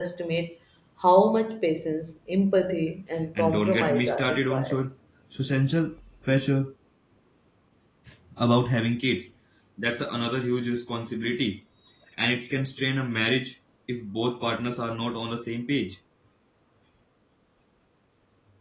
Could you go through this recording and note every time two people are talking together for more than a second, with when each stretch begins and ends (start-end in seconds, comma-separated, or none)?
3.4-4.8